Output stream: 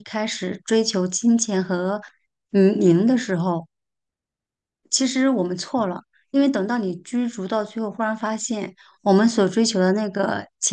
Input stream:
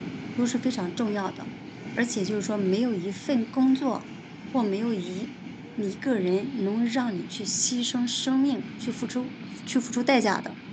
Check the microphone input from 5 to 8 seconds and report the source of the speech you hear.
user only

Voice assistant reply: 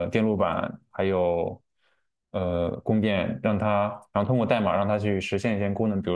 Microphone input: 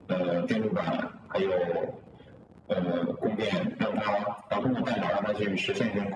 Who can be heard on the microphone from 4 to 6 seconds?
echo only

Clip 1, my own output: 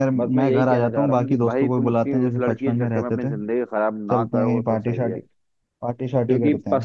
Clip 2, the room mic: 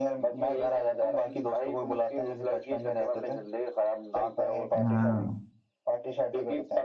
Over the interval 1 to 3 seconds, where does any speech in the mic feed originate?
echo only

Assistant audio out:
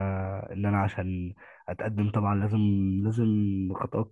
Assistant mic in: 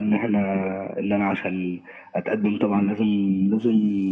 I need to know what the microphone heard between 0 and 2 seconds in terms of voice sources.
echo only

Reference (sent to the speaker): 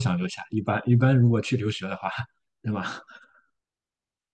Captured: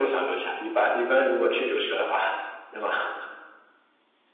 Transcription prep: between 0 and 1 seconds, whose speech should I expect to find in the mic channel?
echo only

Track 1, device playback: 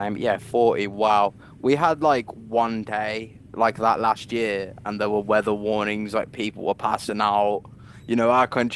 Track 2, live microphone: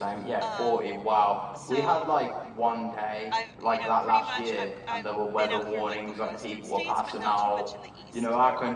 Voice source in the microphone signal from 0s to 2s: both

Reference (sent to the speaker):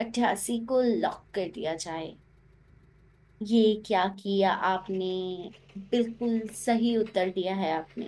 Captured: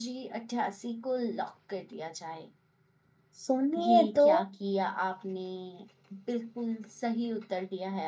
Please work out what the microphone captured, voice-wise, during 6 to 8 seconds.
echo only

